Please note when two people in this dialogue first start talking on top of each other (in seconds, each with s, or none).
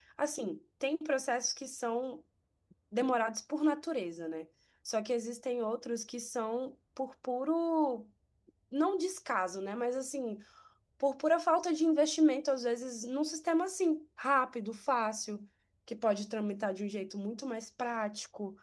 none